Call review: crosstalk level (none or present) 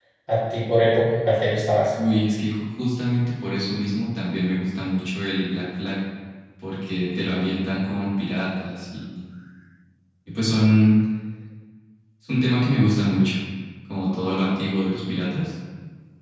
none